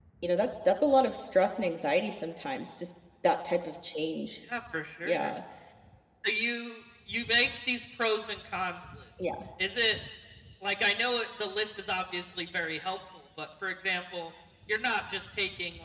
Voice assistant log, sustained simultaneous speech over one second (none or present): none